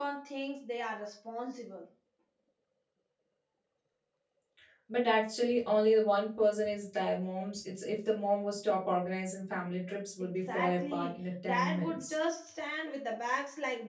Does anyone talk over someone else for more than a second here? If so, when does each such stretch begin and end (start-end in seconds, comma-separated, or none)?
10.2-12.2